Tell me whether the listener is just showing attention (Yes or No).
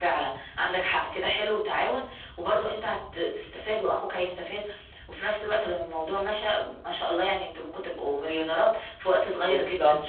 No